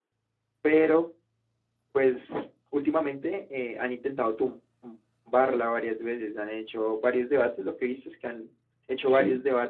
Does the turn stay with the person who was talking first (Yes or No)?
Yes